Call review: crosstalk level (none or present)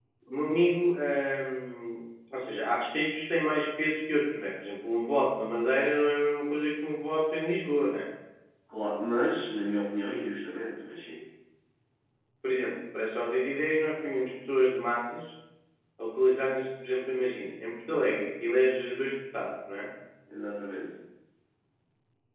none